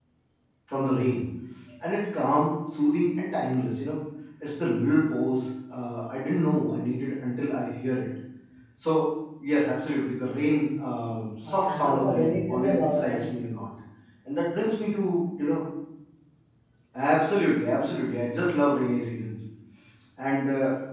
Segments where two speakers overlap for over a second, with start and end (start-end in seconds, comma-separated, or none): 11.4-13.2